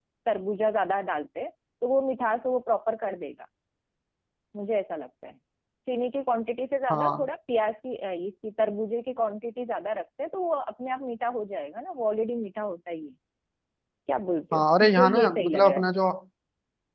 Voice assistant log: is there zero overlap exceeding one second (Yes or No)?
No